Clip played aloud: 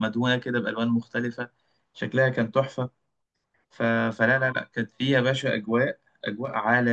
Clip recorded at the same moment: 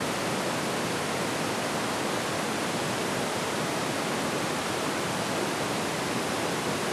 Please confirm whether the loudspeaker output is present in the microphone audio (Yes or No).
No